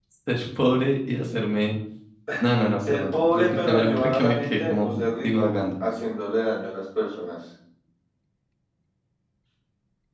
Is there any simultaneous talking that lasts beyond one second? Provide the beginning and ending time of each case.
2.8-5.5

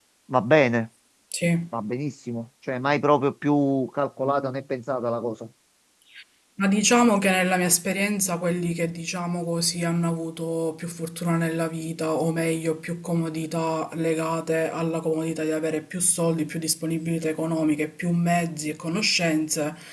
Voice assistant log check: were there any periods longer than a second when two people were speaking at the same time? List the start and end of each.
none

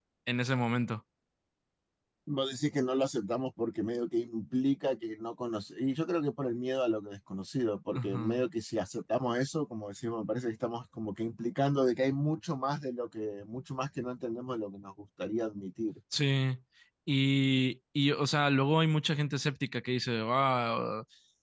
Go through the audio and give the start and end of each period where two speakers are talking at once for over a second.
none

